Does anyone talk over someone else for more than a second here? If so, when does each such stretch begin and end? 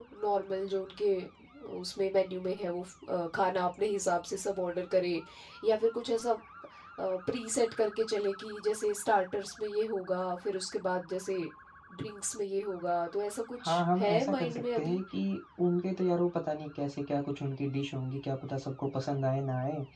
13.7-15.0

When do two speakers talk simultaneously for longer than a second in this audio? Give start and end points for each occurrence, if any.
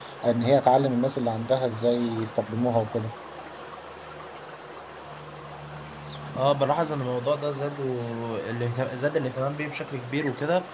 none

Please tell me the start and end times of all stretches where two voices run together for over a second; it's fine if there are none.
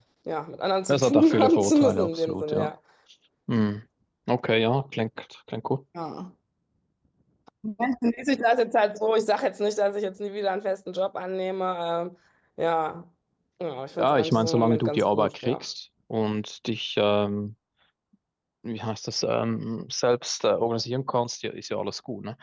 0.9-2.7, 14.0-15.6

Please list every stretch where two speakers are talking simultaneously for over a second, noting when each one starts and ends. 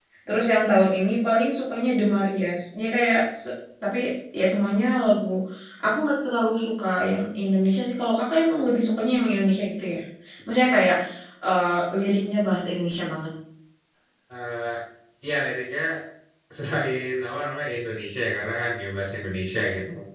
none

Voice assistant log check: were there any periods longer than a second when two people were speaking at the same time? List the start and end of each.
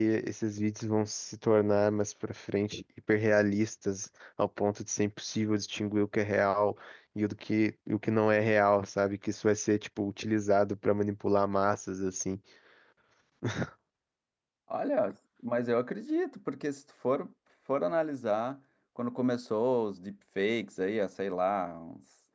none

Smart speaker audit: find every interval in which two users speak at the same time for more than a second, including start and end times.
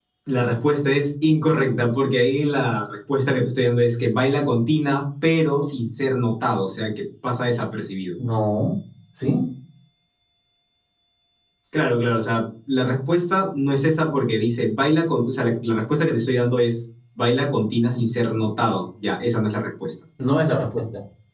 none

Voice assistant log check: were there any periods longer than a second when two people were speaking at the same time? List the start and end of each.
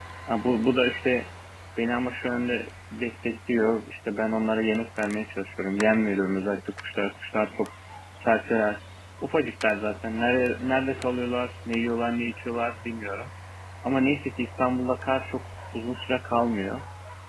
none

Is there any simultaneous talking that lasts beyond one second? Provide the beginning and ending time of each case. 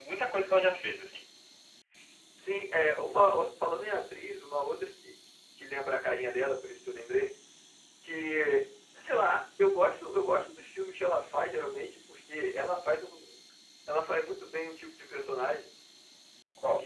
none

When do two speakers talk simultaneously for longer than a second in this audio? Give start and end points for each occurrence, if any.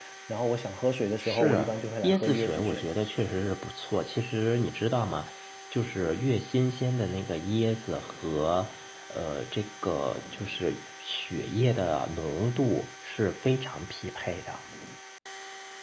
1.2-2.9

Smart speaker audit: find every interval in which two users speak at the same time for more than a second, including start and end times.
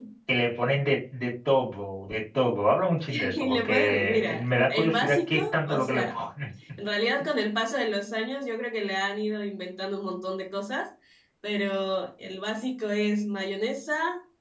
3.1-6.2

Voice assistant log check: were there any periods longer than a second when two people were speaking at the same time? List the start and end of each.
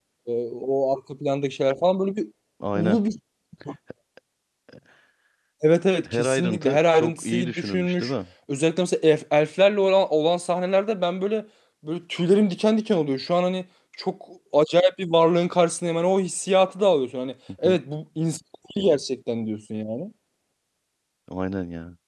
6.1-8.1

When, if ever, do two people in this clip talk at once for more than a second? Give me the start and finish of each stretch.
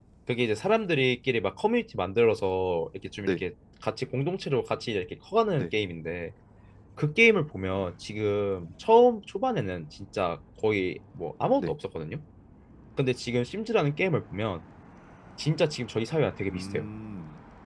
none

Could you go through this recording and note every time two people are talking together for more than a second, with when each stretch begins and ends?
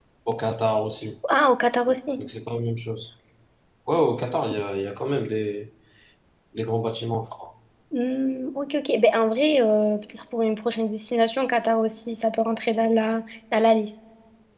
none

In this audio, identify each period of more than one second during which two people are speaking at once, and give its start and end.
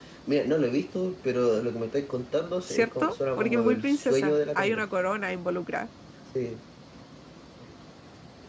2.7-4.8

